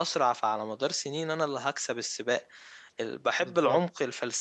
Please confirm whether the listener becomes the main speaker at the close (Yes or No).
No